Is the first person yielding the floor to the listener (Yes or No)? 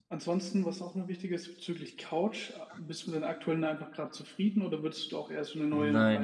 Yes